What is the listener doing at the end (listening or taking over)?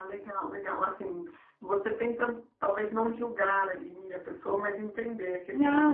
taking over